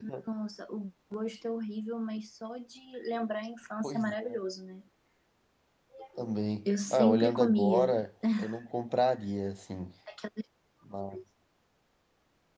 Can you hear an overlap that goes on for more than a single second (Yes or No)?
Yes